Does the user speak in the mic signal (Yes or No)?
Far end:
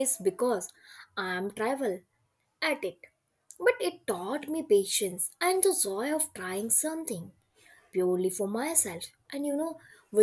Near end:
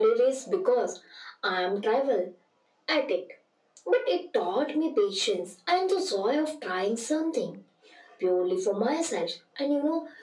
No